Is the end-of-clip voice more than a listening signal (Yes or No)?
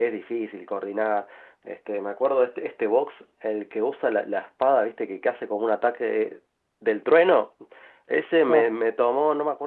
No